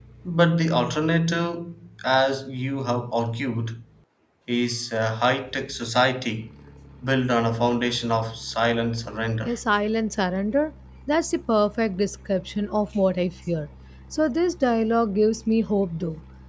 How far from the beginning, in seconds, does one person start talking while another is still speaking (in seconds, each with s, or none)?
none